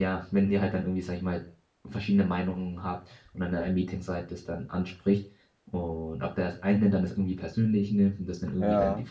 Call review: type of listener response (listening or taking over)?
listening